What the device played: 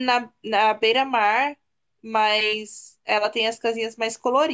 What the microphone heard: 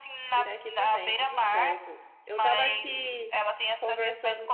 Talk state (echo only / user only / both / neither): both